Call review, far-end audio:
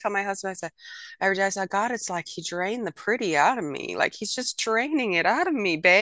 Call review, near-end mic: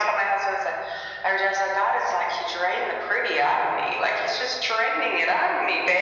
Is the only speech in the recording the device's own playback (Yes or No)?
Yes